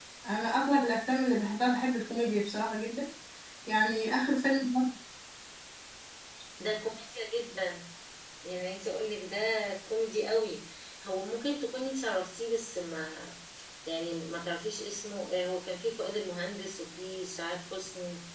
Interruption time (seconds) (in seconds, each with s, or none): none